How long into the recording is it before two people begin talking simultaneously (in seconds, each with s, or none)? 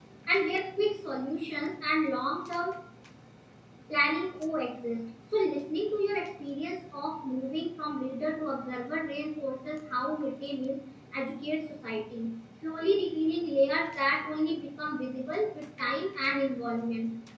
none